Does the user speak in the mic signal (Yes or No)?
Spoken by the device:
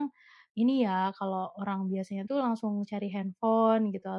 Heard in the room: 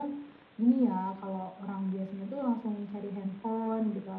No